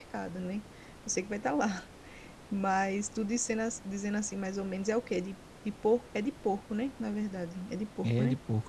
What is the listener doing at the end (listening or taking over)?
taking over